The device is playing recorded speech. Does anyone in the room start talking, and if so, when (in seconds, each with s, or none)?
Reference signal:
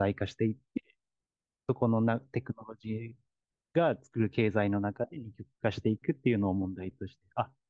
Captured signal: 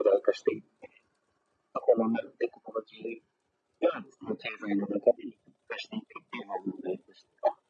none